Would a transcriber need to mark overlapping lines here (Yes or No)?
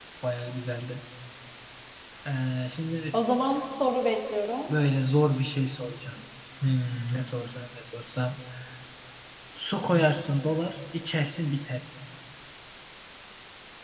No